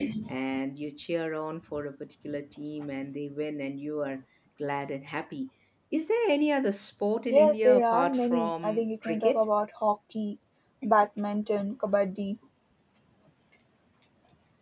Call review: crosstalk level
present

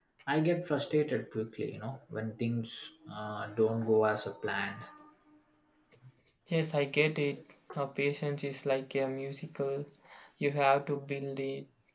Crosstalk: none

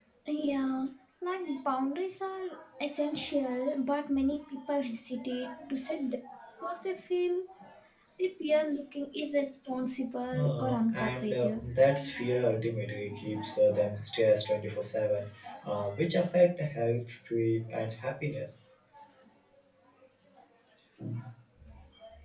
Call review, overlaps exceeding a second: present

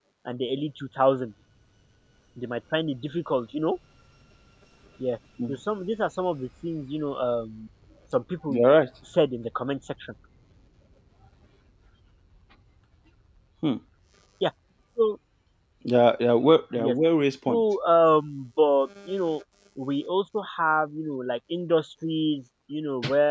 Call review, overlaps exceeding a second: none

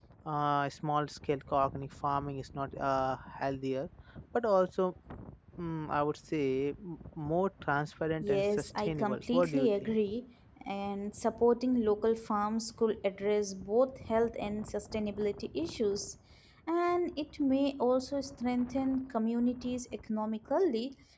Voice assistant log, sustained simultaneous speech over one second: present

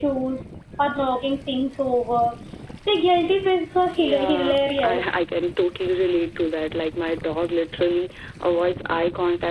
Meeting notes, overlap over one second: present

